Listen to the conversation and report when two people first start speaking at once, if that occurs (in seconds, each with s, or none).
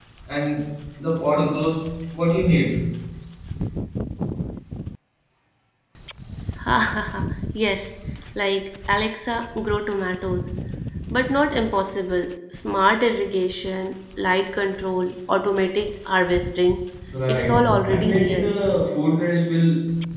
17.2 s